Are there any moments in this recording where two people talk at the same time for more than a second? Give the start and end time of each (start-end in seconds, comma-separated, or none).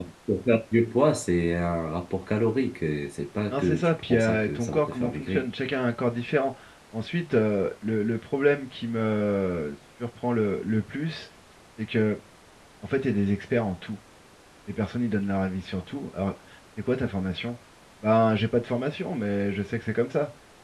3.5-5.5